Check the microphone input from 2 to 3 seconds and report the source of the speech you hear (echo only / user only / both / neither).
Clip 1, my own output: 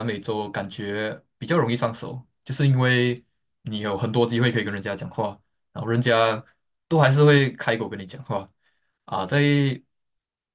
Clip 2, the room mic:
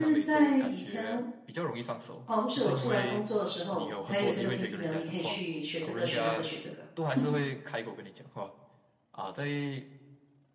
both